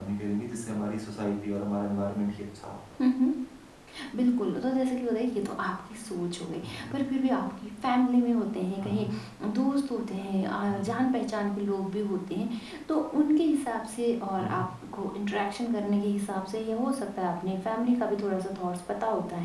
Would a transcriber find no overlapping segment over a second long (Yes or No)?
Yes